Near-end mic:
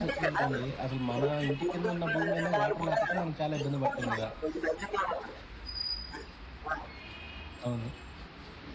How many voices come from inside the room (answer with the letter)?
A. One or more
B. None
A